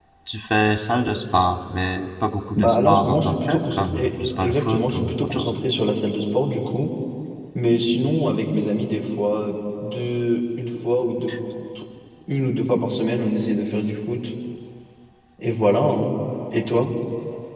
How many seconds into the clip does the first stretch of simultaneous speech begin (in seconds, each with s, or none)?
2.5 s